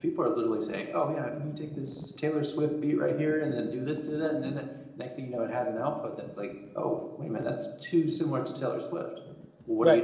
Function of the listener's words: taking over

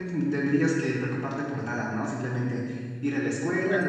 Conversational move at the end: listening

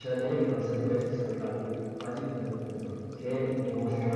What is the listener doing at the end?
listening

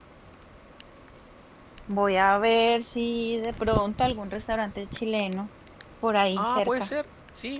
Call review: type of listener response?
taking over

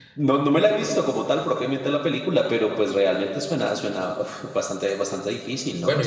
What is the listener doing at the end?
taking over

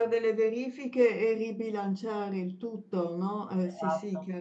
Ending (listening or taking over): taking over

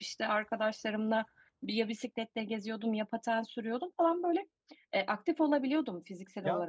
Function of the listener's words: taking over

